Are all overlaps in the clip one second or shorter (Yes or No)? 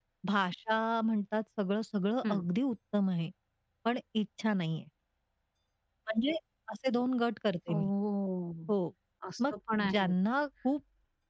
Yes